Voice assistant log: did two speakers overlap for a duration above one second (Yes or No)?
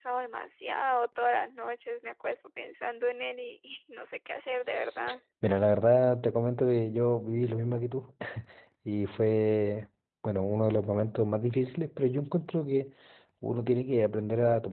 No